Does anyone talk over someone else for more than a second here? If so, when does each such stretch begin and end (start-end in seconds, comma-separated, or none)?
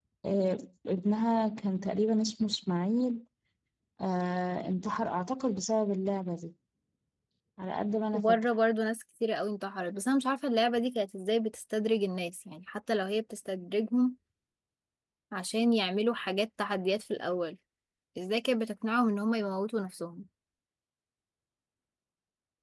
none